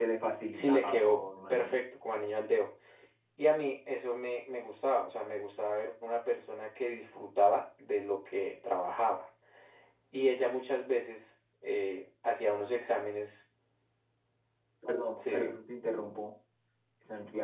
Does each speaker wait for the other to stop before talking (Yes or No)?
No